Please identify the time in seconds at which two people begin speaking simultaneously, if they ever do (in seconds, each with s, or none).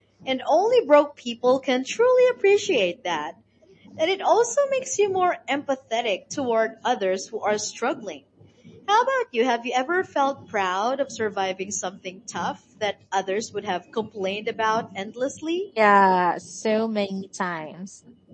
none